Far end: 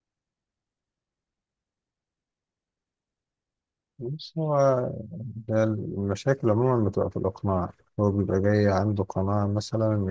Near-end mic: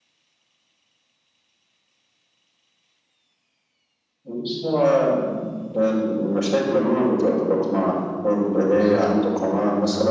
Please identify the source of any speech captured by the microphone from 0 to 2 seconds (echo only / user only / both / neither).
neither